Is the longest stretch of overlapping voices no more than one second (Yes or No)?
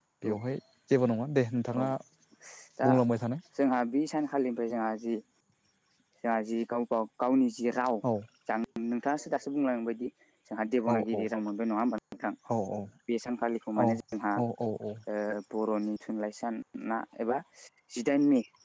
Yes